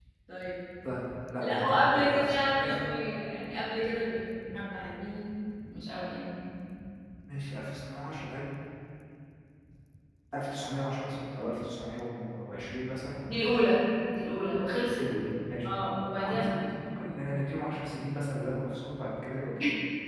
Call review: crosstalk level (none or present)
present